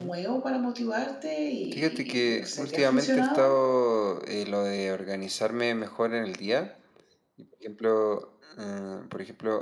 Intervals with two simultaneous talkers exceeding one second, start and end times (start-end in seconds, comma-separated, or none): 1.7-3.5